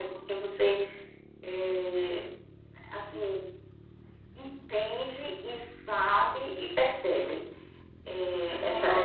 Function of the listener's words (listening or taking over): taking over